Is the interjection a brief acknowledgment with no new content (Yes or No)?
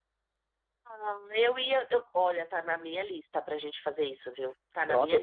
Yes